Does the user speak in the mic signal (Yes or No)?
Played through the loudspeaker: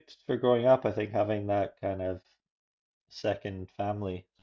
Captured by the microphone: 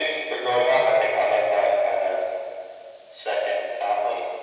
No